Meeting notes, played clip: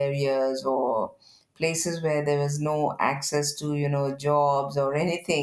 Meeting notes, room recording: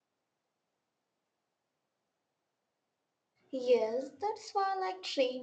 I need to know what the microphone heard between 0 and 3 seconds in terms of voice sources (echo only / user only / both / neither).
neither